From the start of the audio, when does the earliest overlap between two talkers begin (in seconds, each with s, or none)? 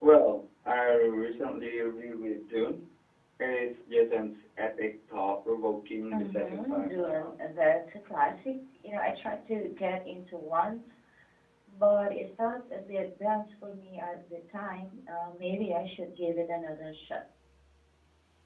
6.1 s